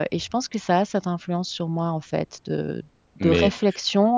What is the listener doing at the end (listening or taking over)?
listening